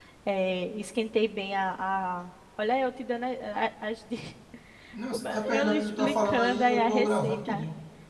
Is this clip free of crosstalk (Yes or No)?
No